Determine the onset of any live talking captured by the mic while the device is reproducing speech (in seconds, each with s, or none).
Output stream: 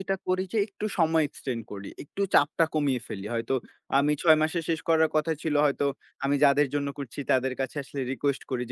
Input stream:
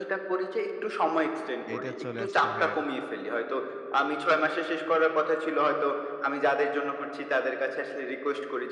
1.7 s